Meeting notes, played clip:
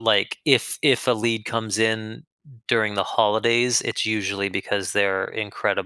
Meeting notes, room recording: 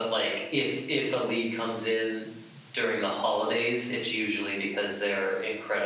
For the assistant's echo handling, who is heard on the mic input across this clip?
echo only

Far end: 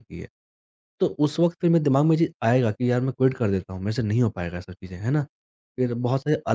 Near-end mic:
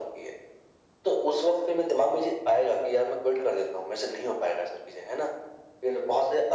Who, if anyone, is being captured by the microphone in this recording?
echo only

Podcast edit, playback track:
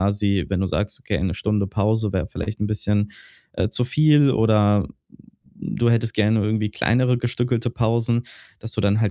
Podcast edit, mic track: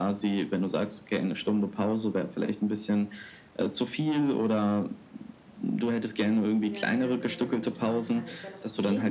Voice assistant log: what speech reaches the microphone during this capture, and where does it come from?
both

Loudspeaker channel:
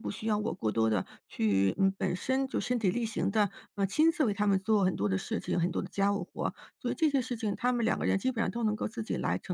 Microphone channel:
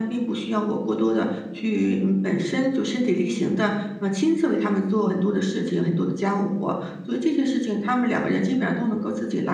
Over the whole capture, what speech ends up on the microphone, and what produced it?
both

